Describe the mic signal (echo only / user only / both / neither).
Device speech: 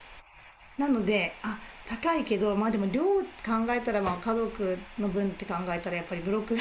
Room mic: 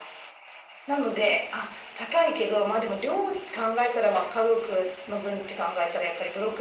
echo only